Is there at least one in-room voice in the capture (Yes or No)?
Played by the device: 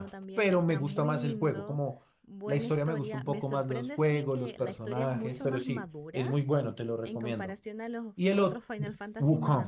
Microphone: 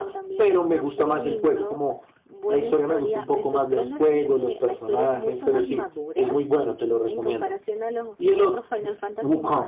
No